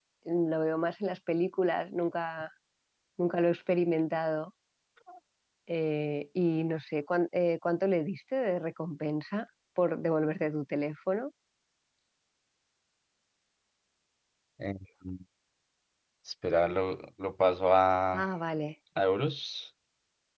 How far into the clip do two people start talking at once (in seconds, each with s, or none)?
none